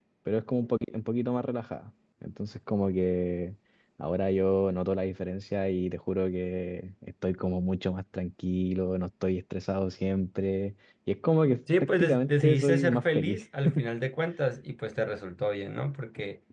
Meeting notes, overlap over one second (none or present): present